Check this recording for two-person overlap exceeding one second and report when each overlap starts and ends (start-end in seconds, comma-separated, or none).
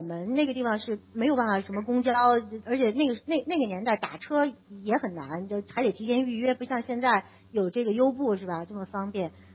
none